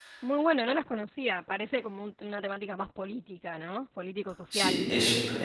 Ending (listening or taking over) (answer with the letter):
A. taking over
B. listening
A